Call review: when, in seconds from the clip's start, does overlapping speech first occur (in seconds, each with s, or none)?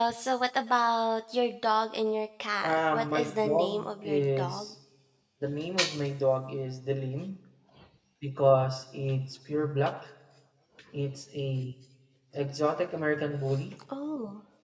2.6 s